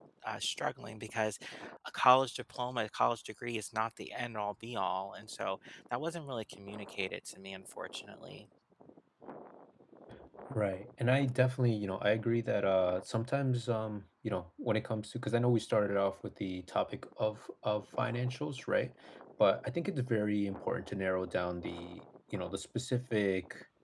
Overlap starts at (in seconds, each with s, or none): none